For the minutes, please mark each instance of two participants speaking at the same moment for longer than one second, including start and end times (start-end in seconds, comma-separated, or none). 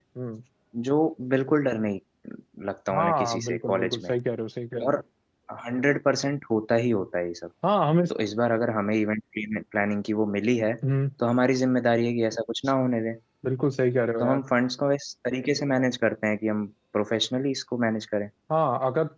2.9-4.1